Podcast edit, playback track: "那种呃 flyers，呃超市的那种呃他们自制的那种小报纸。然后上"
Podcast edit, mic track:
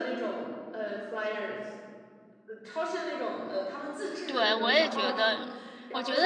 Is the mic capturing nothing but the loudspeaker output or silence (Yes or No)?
No